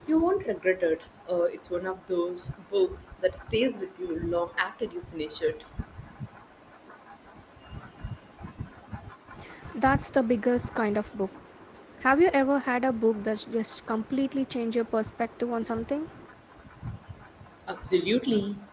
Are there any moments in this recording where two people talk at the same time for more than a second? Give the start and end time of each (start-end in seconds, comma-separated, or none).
none